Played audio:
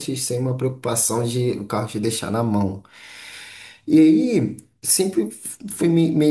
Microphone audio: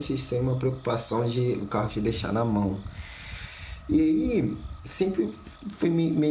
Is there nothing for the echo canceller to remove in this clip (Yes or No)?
No